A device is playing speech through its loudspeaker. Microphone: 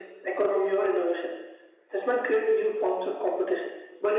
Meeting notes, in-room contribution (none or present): none